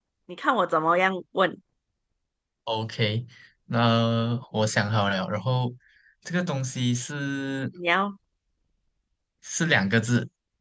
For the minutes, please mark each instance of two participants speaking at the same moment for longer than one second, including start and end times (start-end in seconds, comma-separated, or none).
none